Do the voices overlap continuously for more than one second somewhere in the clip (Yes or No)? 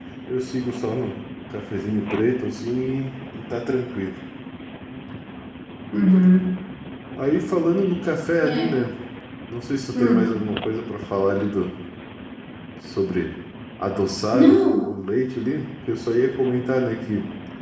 No